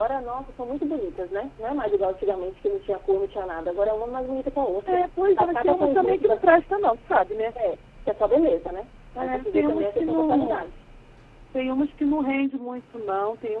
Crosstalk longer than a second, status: present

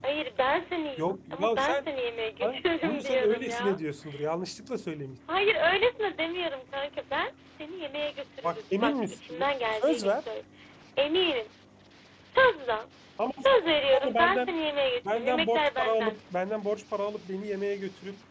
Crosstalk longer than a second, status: present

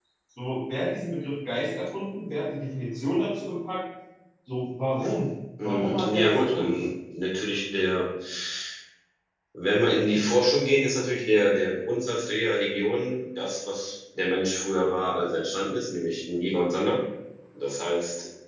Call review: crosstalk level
present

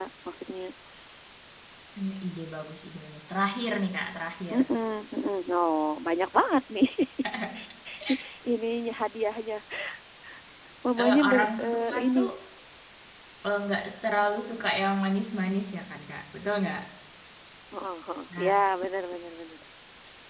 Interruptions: present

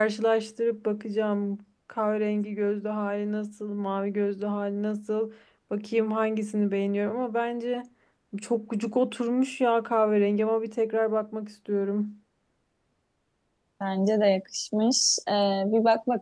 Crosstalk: none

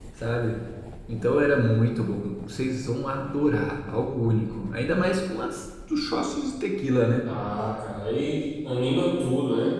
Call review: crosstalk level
none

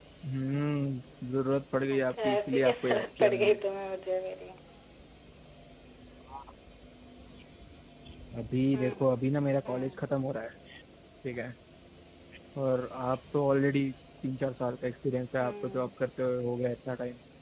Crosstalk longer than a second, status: present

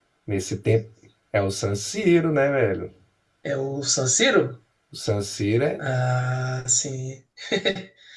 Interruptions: none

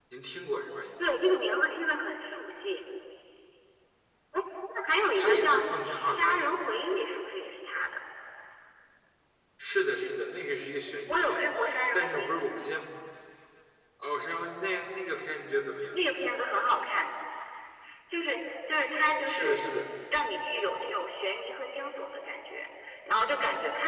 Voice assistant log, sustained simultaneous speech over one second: present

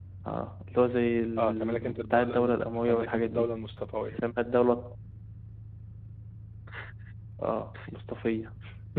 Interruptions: present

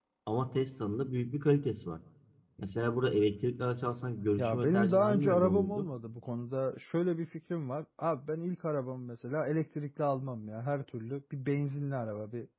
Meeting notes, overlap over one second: present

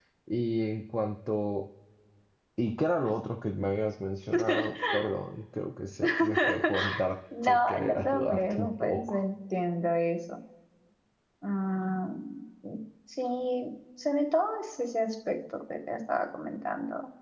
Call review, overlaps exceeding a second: present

